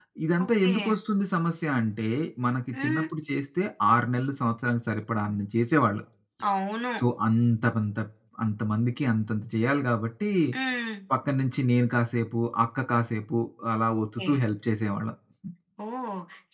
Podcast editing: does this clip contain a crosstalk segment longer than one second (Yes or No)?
No